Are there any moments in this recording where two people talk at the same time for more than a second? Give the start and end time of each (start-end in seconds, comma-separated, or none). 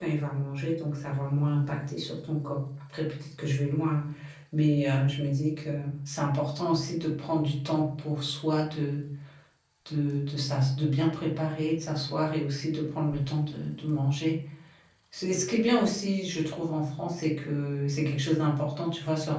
none